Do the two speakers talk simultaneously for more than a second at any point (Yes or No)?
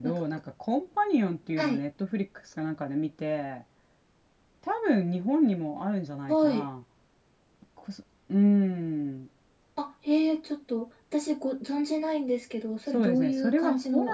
Yes